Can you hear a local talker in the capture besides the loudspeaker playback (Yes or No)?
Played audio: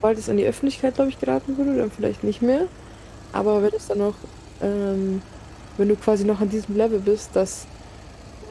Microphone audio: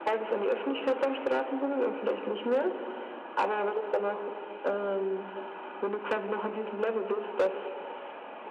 No